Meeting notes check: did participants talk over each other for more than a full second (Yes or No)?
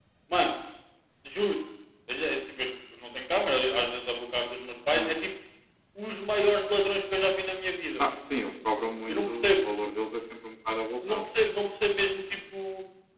No